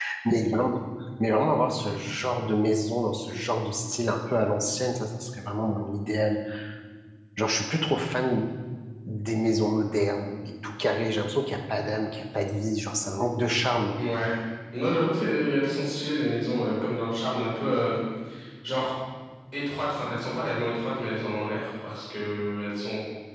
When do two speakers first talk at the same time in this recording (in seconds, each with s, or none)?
none